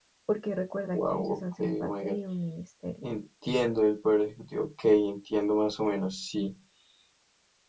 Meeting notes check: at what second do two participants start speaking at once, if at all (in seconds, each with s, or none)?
0.9 s